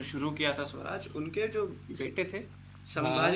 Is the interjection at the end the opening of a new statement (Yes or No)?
No